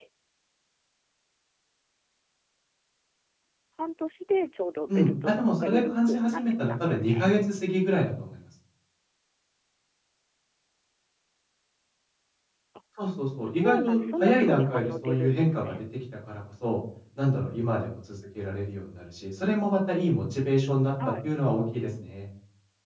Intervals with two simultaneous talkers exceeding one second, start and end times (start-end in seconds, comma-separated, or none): 4.9-7.3, 13.6-15.8